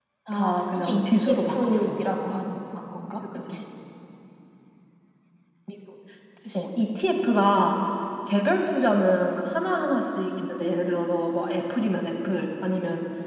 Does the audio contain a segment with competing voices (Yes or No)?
Yes